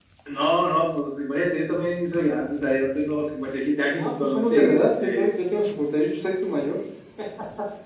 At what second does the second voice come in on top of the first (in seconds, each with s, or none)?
4.0 s